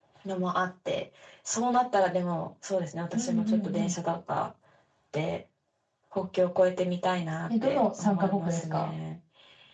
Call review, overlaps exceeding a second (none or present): present